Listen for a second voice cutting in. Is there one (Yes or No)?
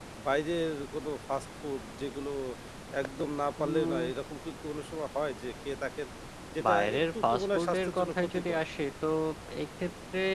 Yes